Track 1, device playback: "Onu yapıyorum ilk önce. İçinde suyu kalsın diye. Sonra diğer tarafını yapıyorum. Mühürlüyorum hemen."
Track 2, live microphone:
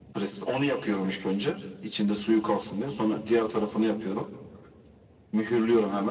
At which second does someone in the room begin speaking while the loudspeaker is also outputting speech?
none

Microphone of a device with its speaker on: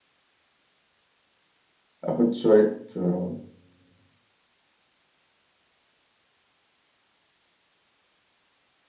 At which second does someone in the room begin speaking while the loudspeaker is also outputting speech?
2.0 s

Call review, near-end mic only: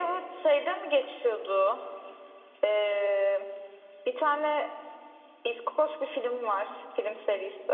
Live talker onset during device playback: none

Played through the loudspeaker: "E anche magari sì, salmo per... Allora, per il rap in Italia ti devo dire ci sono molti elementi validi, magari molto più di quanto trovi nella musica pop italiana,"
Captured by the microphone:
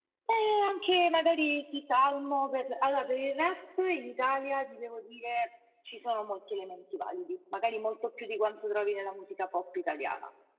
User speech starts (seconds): none

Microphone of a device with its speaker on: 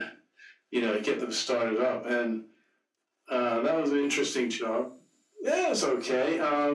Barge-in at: none

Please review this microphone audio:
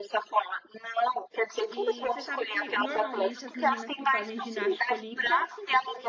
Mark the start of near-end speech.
1.7 s

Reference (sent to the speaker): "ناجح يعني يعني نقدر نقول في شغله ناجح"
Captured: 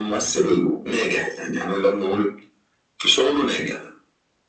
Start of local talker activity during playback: none

